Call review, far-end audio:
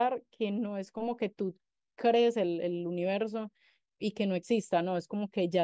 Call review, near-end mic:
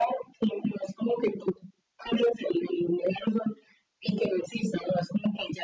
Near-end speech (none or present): none